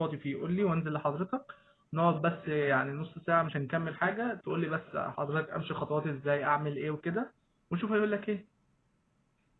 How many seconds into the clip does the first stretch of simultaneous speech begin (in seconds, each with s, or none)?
none